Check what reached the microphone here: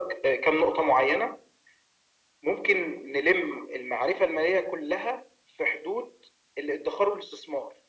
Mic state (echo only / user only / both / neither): echo only